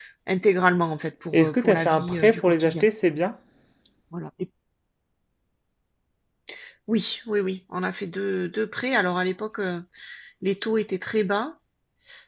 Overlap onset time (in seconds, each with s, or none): 1.3 s